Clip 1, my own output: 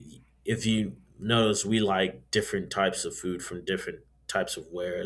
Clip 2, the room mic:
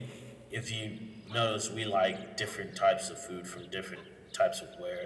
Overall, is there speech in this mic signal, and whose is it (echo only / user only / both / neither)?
echo only